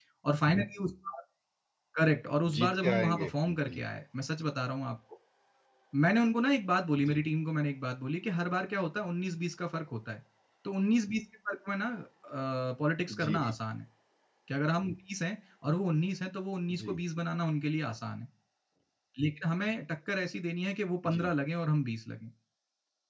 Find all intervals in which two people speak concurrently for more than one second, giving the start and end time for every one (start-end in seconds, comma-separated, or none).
2.5-3.8